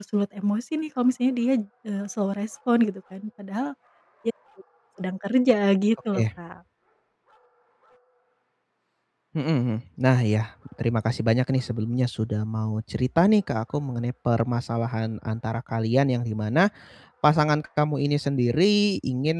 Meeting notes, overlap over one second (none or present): none